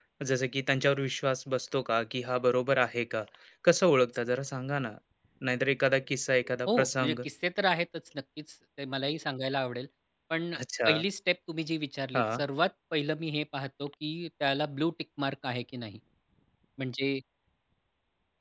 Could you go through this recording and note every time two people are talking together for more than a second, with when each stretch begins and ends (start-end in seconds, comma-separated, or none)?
none